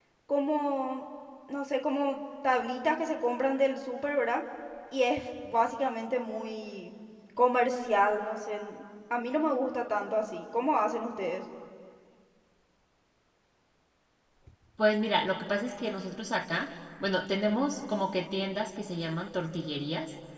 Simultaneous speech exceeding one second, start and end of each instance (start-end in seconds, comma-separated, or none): none